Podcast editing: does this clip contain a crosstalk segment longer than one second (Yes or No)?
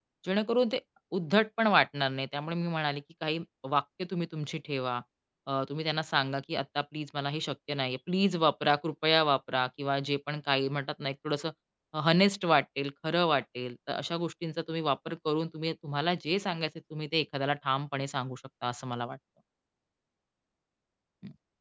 No